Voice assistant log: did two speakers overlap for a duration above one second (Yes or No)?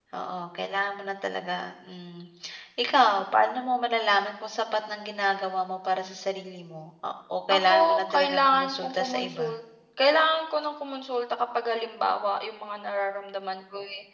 Yes